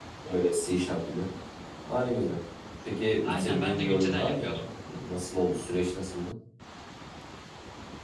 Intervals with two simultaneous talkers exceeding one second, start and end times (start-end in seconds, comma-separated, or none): 3.2-4.6